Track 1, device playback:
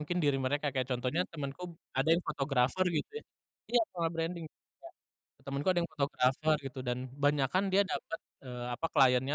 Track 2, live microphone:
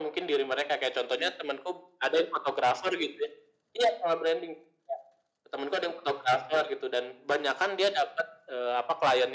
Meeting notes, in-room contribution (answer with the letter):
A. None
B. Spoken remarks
A